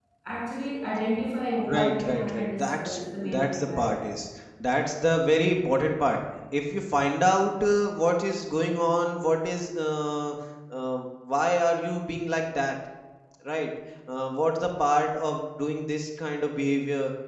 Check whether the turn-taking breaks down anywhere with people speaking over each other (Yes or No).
Yes